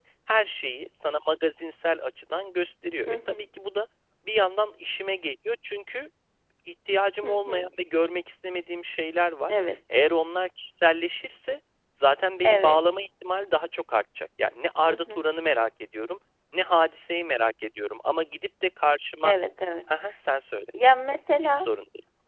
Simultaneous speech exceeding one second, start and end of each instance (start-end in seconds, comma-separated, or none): none